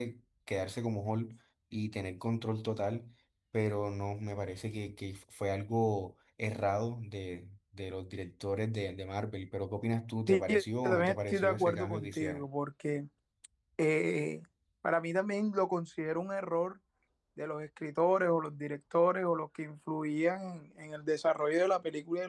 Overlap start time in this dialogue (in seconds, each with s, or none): 10.3 s